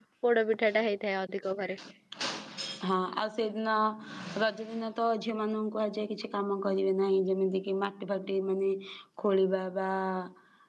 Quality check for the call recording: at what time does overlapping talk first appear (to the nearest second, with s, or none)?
none